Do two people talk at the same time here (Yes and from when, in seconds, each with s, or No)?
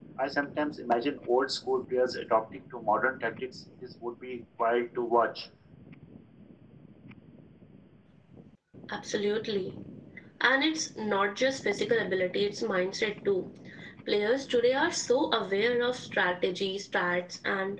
No